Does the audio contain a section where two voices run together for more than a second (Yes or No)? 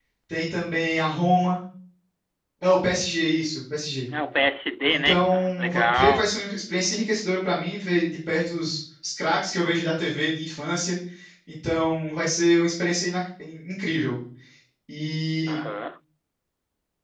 Yes